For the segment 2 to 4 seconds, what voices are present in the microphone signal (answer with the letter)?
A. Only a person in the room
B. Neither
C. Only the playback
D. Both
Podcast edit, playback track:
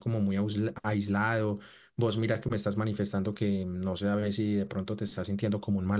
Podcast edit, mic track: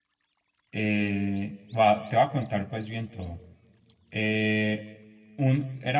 A